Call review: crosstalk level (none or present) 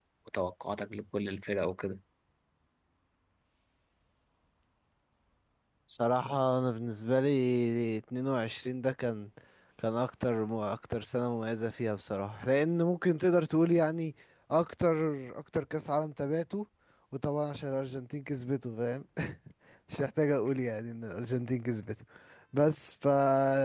none